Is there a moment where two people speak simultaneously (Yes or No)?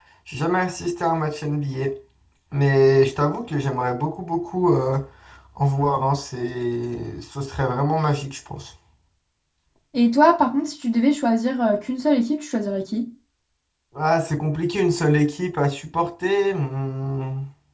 No